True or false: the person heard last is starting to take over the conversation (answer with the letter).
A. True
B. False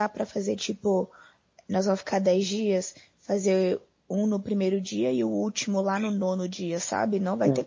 A